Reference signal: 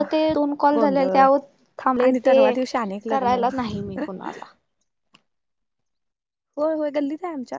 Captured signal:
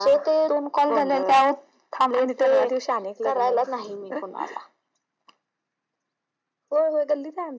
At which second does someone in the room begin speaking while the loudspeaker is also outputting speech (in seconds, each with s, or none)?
none